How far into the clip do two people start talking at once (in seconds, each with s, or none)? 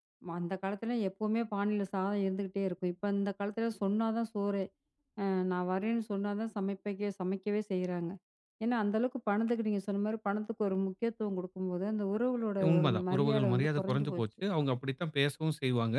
12.6 s